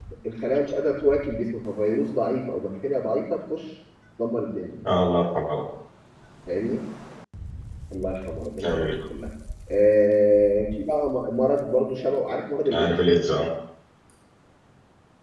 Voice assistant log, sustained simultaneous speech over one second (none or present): none